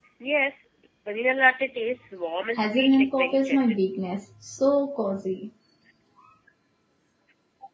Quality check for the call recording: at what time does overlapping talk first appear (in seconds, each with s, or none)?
2.6 s